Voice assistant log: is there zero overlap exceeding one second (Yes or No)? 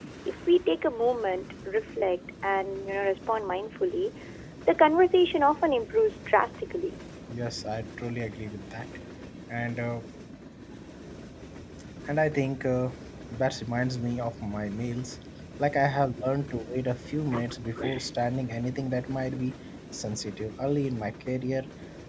Yes